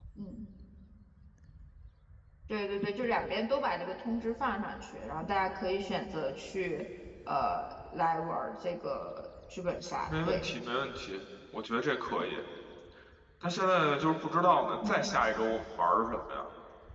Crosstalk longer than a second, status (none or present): none